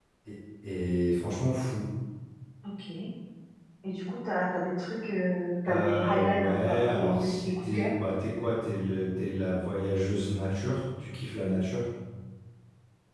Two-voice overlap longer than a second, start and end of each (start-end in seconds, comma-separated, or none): 5.7-7.9